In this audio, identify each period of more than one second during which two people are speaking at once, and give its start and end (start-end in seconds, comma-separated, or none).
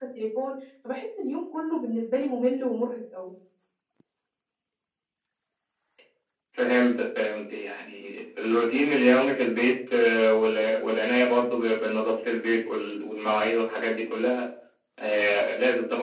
none